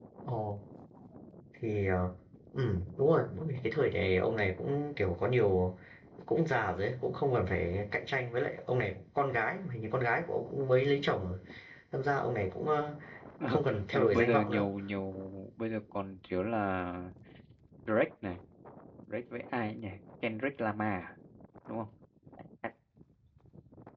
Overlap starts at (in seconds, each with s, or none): 13.5 s